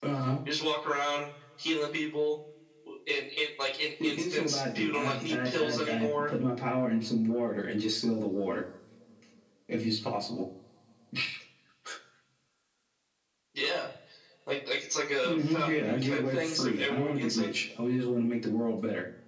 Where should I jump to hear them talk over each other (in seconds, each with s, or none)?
4.0 s